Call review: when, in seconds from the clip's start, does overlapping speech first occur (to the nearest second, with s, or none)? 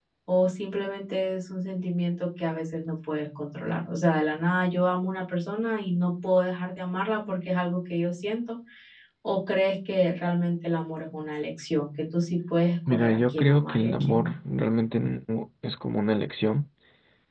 13 s